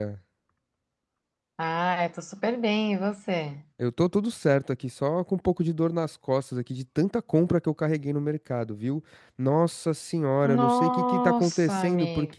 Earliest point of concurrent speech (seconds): 10.4 s

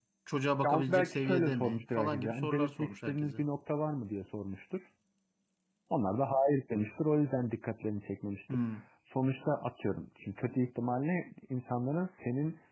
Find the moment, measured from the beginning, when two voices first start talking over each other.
0.7 s

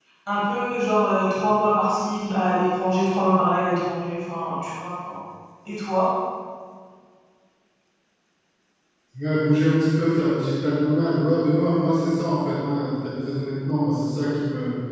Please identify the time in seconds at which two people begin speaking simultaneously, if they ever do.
none

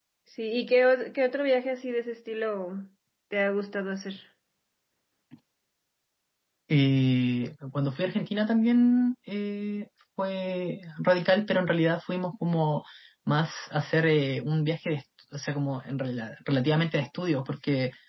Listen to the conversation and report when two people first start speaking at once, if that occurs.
none

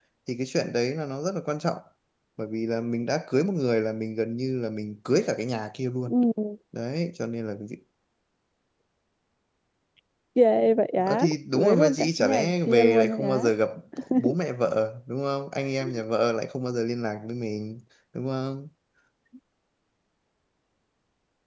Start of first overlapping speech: 11.1 s

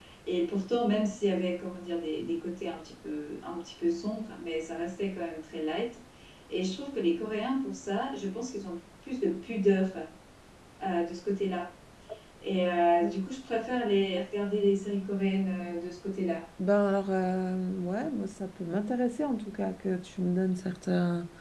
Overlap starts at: none

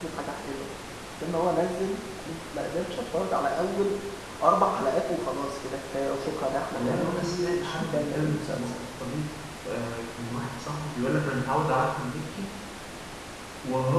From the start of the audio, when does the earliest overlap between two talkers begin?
6.7 s

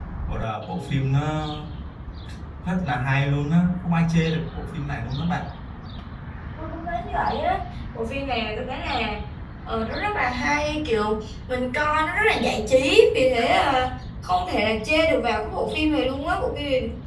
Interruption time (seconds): none

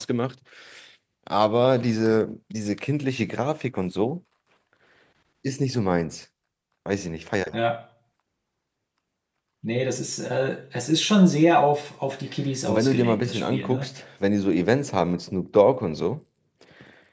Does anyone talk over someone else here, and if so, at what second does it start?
12.7 s

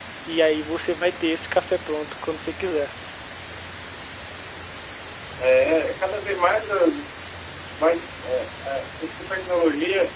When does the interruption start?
none

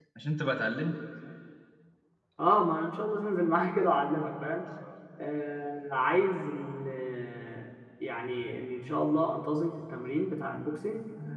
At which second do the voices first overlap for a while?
none

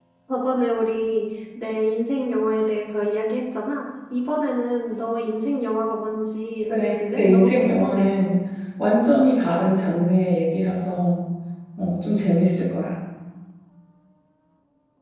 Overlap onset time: 6.7 s

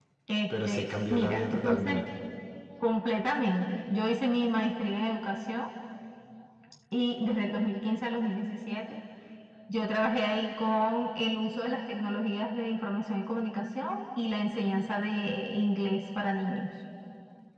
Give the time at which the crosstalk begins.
0.5 s

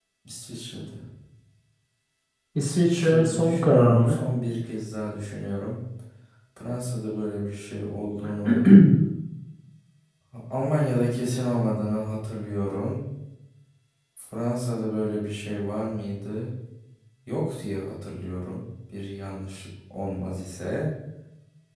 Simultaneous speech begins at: 2.6 s

